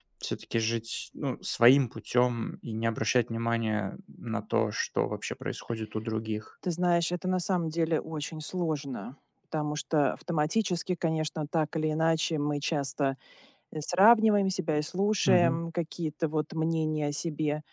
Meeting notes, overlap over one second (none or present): none